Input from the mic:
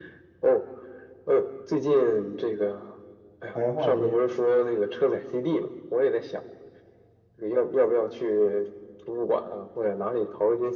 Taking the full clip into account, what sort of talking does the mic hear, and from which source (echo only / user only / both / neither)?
both